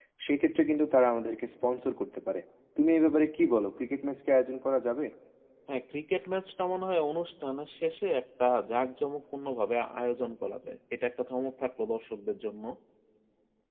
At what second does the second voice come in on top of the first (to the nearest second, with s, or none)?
none